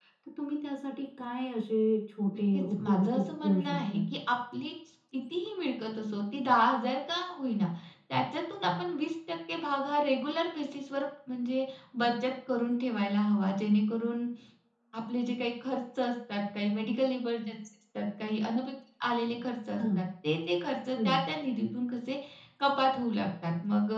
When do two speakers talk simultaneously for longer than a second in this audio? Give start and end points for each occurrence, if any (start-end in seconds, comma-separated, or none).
2.5-4.0